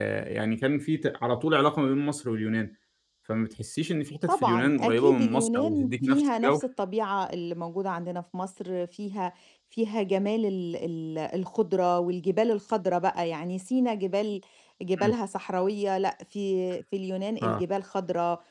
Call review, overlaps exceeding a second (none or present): present